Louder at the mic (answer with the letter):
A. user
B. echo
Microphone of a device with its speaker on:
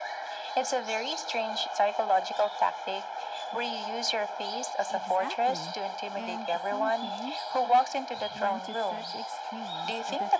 B